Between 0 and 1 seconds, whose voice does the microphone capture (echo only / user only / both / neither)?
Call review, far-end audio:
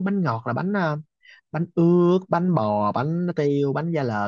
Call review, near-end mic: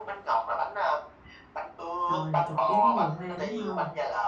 echo only